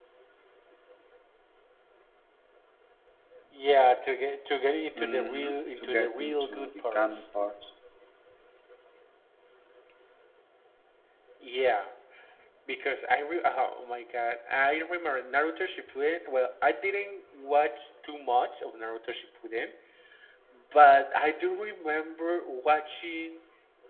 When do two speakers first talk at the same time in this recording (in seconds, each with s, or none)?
5.0 s